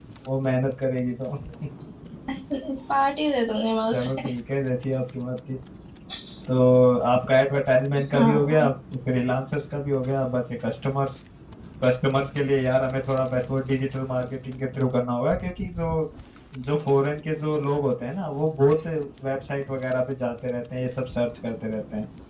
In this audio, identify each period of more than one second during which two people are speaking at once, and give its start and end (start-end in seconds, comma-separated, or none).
none